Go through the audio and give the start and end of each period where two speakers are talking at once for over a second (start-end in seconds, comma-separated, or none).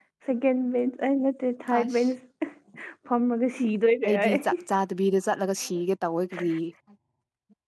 none